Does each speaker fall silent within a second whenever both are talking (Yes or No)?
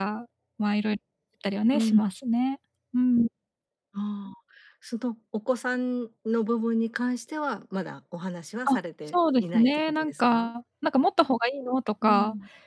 No